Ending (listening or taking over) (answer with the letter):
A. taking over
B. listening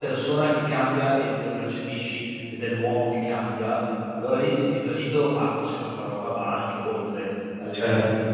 A